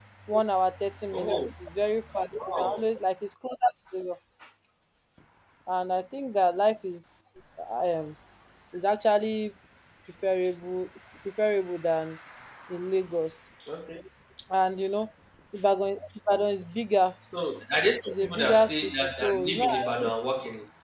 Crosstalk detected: Yes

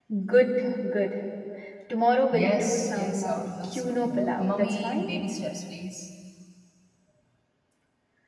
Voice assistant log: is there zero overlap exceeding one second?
No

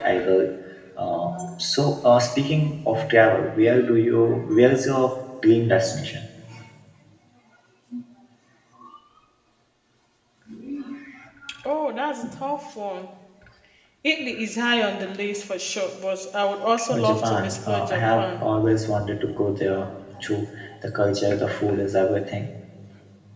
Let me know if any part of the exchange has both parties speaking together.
Yes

